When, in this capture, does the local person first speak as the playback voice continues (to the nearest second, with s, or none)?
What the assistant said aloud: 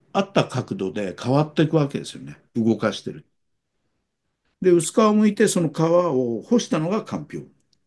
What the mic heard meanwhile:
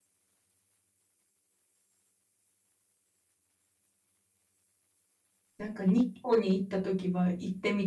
6 s